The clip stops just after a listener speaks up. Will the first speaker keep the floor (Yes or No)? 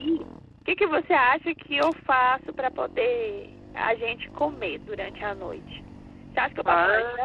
Yes